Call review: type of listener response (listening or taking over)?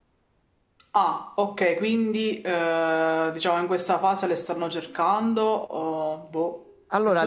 taking over